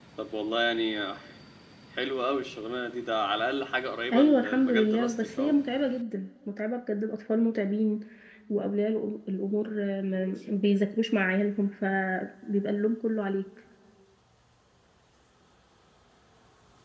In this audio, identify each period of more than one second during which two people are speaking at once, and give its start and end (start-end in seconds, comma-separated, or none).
4.1-5.5